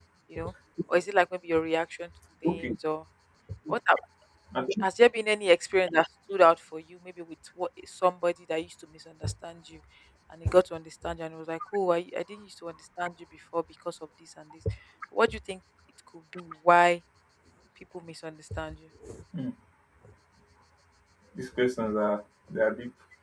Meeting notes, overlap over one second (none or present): none